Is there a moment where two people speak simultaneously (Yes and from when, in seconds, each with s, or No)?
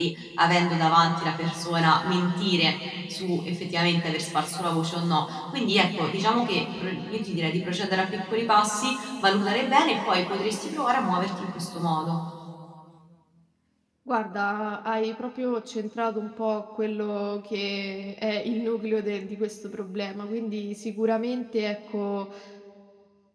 No